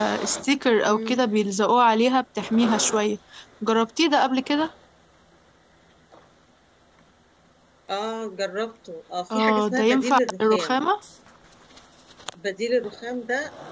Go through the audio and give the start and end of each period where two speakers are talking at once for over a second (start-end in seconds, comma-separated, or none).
9.3-10.8